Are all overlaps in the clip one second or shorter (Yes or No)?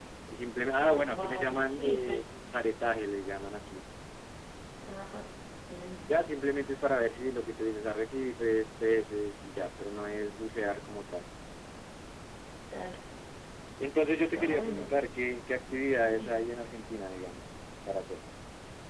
No